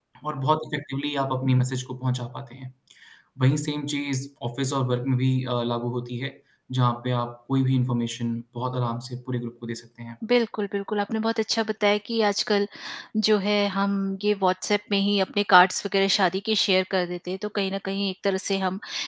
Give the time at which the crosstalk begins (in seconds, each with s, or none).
none